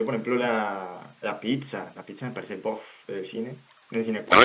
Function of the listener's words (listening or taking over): taking over